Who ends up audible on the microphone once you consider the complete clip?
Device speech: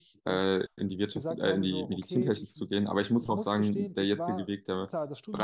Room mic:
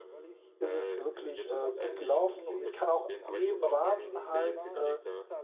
both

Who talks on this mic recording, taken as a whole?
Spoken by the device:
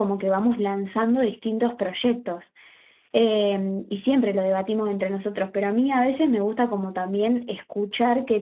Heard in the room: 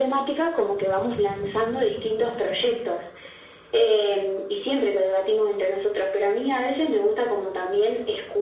echo only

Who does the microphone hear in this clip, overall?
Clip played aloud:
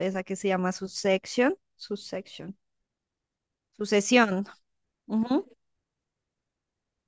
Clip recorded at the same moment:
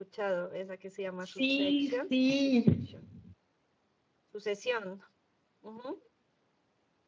both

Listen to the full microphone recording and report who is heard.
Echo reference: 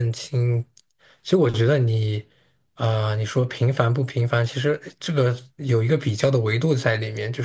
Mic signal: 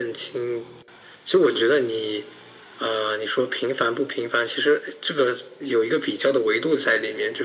echo only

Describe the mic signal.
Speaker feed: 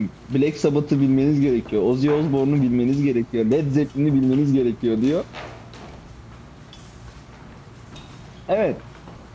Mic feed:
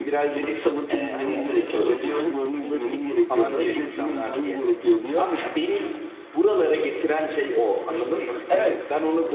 both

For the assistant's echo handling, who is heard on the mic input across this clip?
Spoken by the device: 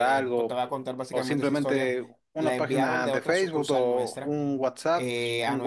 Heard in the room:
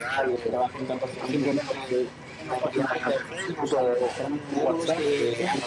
both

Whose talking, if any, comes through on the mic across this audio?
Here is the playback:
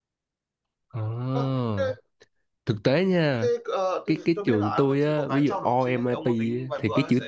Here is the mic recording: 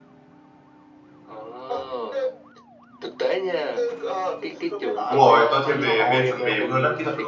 both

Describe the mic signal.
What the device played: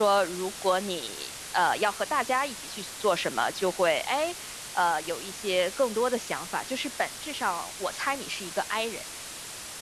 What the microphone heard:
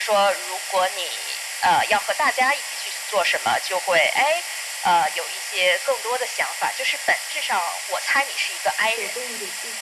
both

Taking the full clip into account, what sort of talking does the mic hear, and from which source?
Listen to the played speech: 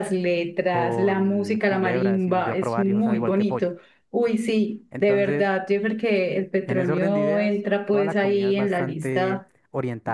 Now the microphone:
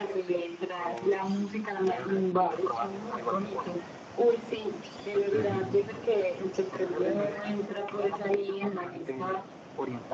both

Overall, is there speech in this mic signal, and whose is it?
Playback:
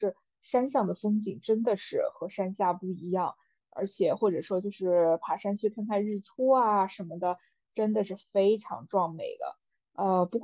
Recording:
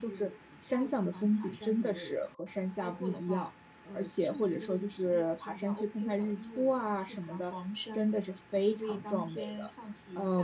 both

